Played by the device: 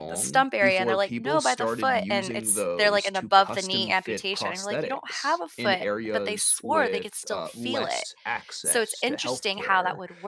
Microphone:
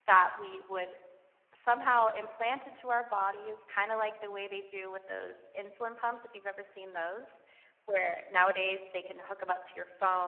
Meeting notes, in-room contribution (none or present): present